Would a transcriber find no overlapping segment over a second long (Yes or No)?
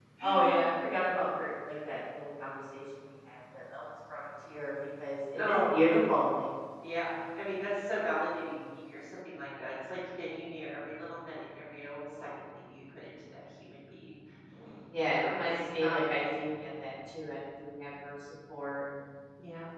No